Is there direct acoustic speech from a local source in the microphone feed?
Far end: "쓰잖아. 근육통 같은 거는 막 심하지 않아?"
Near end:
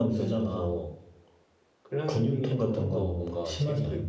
Yes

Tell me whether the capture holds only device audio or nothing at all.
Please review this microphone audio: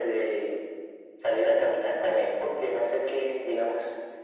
Yes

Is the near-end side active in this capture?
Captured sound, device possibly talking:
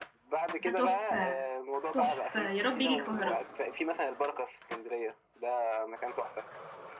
Yes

